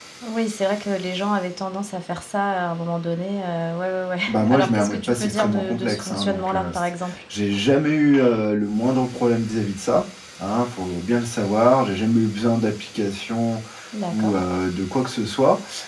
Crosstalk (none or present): present